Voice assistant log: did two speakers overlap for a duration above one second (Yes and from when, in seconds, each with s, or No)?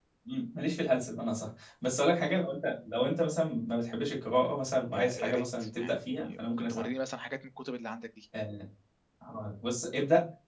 Yes, from 4.9 s